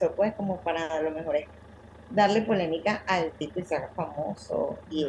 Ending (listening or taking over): listening